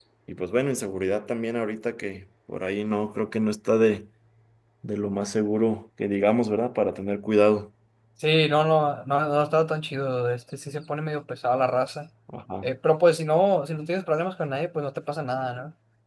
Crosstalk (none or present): none